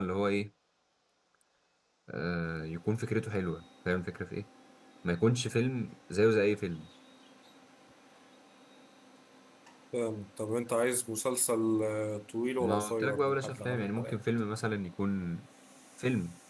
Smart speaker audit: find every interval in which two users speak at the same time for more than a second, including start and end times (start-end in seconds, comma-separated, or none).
12.6-14.2